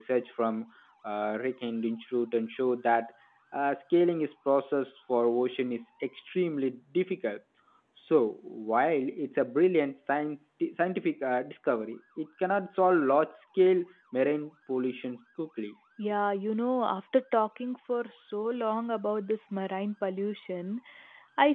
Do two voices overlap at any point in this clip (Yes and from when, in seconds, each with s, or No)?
No